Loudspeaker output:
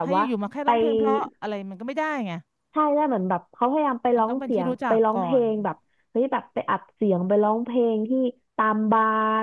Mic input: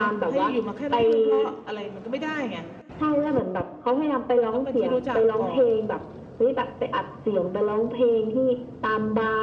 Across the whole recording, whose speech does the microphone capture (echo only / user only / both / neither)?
echo only